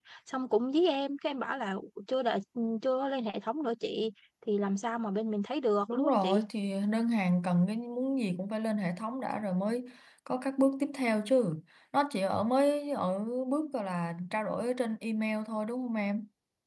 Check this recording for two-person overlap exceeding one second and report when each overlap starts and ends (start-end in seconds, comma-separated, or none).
none